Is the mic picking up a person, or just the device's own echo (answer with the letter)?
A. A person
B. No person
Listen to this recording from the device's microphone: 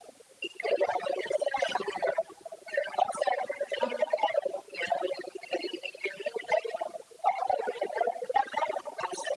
A